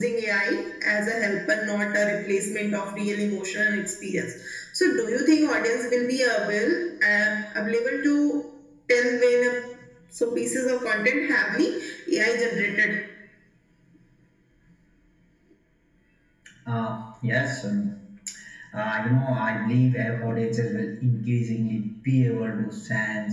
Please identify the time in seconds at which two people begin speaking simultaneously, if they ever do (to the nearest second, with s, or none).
none